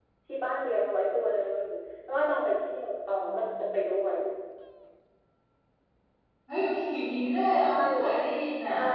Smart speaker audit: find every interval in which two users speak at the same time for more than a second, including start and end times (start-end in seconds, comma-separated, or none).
none